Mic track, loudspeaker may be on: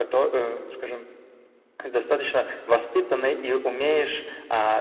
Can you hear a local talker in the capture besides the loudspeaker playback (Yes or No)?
No